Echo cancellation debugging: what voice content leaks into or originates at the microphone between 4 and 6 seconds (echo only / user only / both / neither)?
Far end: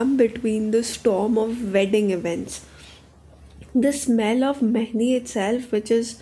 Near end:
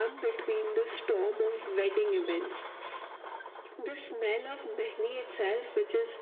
echo only